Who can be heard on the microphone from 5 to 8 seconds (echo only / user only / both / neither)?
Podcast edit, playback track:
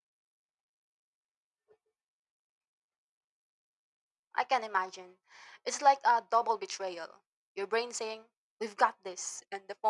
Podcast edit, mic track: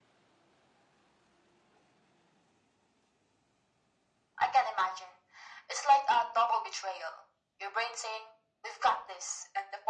echo only